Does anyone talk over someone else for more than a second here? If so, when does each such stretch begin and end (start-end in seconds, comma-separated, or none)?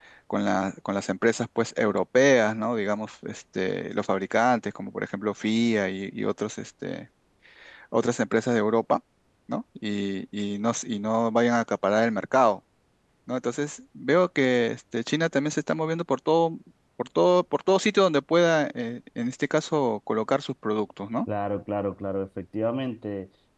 none